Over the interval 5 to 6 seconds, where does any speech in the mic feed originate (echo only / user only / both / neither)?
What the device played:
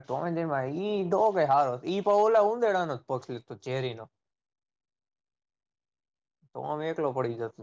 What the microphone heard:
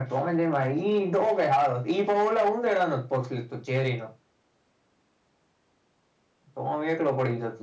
neither